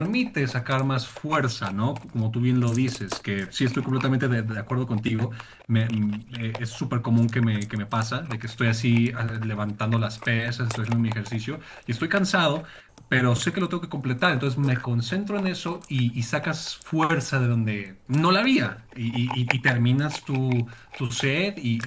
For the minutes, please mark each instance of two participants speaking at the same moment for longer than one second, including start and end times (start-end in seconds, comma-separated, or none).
none